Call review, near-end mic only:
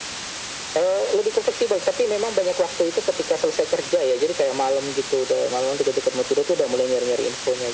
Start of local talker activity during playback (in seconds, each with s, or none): none